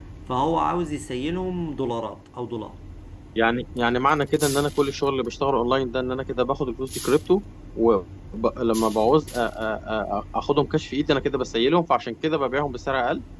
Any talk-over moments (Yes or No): No